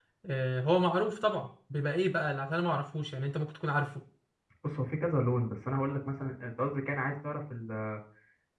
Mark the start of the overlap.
none

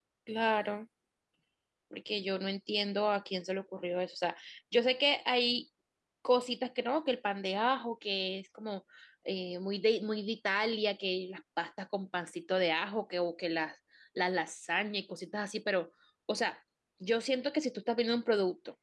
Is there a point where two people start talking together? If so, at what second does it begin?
none

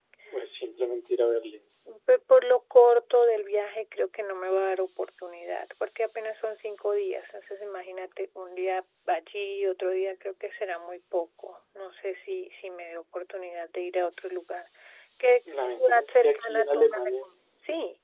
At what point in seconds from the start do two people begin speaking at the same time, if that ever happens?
15.5 s

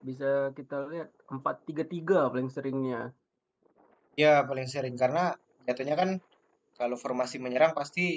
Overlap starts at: none

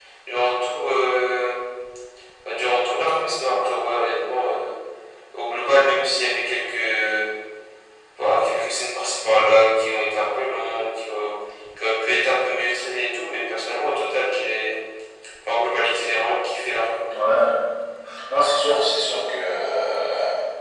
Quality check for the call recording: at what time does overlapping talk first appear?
none

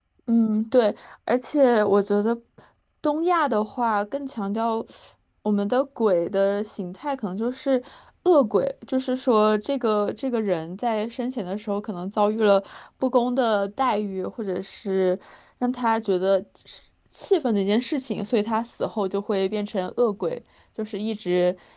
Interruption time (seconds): none

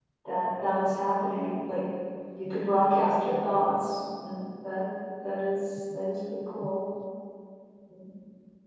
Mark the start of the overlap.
none

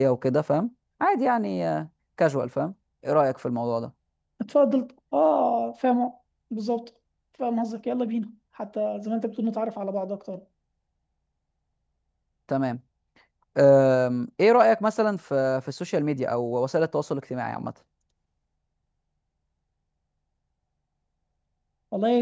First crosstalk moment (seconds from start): none

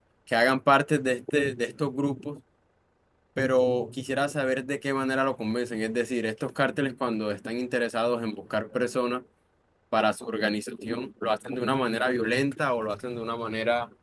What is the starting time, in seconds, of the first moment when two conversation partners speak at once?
none

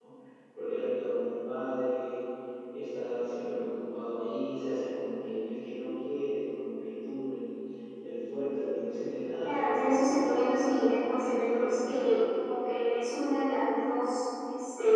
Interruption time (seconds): 9.4 s

